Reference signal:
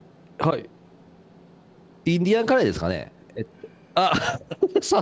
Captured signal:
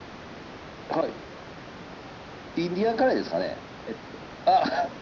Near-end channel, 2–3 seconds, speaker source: echo only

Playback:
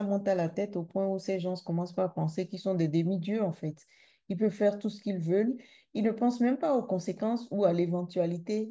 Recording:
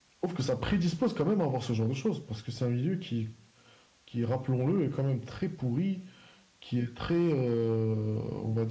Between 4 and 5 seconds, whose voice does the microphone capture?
user only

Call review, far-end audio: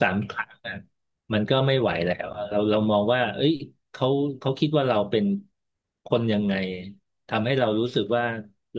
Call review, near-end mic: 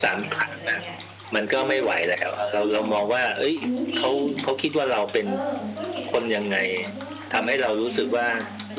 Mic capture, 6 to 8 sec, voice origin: both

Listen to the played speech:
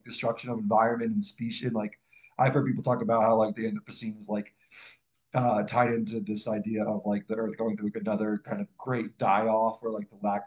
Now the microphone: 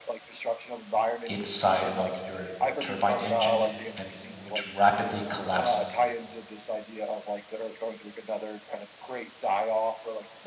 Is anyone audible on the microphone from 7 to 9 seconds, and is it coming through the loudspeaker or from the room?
echo only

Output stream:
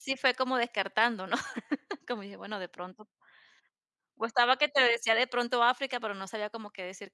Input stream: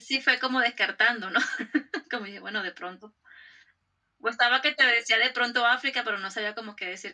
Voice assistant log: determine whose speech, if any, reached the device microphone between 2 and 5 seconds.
echo only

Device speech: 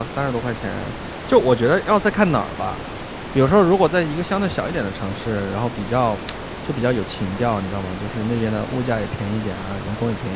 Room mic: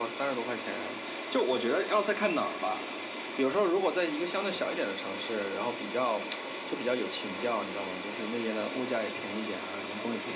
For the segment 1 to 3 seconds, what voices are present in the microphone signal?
echo only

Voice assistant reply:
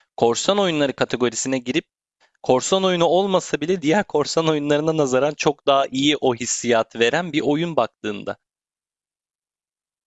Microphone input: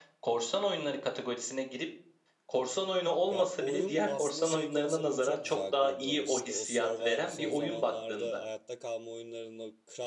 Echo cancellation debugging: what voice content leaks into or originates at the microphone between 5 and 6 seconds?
both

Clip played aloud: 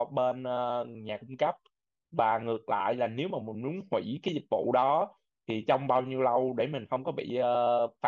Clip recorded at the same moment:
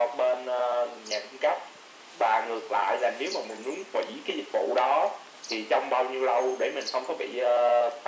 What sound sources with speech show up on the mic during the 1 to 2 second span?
echo only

